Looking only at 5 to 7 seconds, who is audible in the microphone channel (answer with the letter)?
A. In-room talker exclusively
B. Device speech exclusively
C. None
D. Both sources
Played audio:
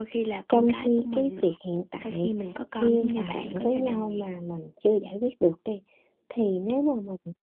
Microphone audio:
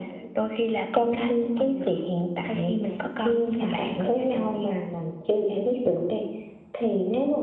B